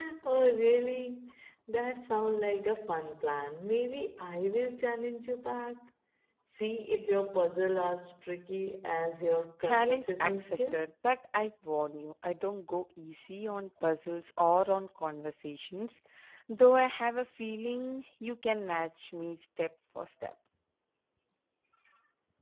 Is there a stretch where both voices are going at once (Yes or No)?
Yes